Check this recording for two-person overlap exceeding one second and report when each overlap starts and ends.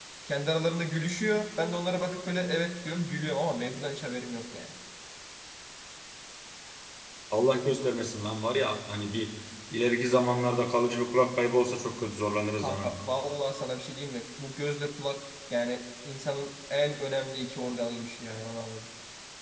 none

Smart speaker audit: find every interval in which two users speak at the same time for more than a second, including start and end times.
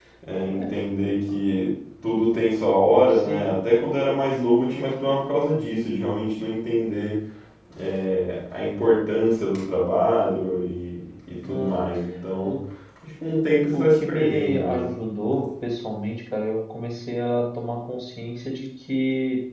13.7-14.9

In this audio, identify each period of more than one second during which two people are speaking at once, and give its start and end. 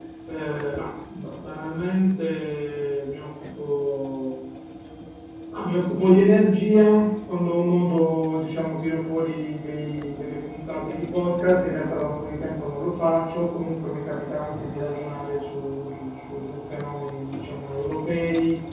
none

